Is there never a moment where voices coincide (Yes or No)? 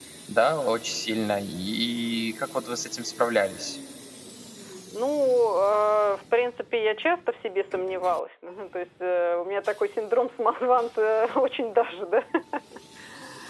Yes